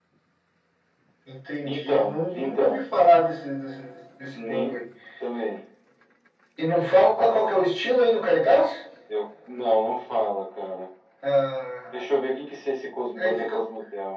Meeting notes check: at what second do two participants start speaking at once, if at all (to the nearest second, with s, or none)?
2 s